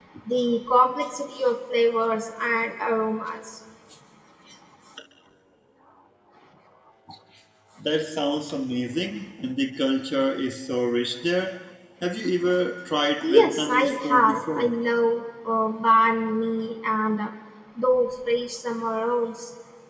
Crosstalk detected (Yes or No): Yes